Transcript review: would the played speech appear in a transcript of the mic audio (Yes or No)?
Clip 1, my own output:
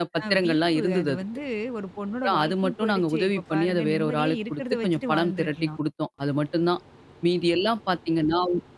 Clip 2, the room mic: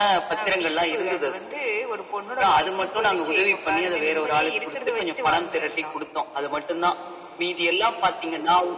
Yes